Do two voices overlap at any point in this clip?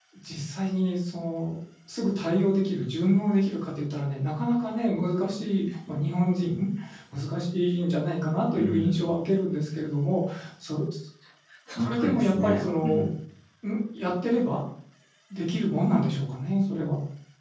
Yes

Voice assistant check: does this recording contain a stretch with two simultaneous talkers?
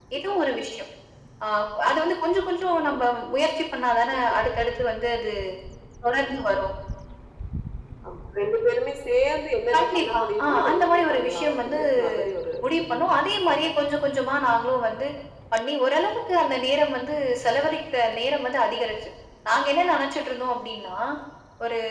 Yes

